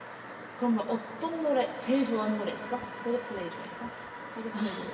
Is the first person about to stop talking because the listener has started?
Yes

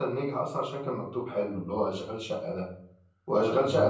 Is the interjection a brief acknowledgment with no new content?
Yes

